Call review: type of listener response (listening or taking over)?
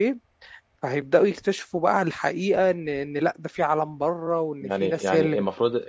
taking over